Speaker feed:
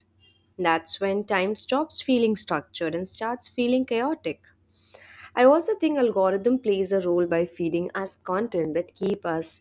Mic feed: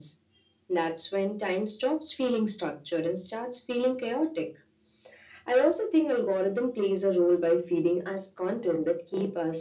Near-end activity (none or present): none